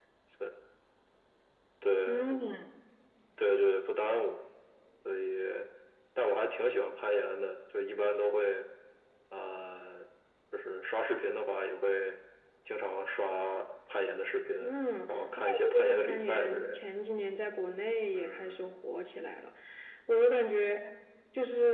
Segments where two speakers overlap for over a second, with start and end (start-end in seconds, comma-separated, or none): 15.1-16.8